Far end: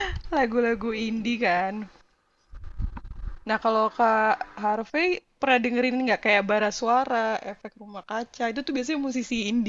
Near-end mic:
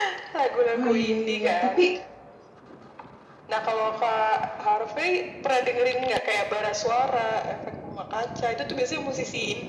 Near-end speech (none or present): present